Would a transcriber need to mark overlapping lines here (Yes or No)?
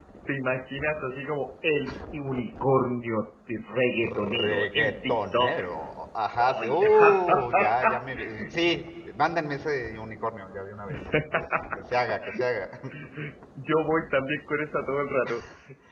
Yes